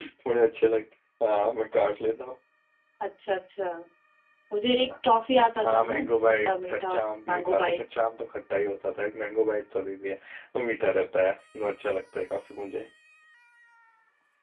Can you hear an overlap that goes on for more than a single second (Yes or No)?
Yes